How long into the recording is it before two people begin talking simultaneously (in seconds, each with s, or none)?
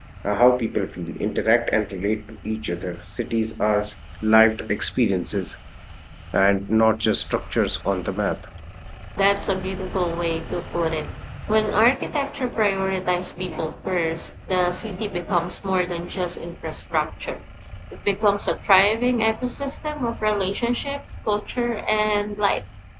none